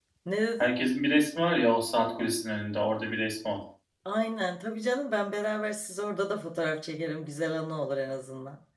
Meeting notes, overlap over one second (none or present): none